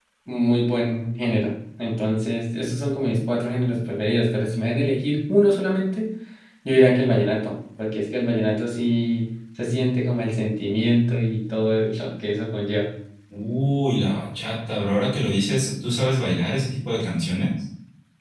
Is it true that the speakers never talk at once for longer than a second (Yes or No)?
Yes